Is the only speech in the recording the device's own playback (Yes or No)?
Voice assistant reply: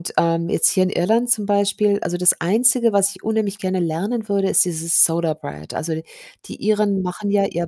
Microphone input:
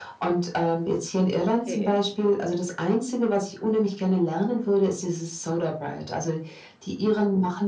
No